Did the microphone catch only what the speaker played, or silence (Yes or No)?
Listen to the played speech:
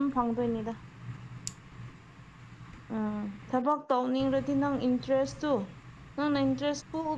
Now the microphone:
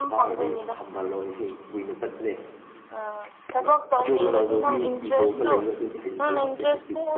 No